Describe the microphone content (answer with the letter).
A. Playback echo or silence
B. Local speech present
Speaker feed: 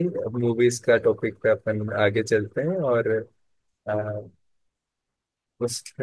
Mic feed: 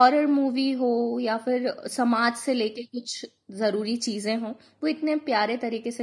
B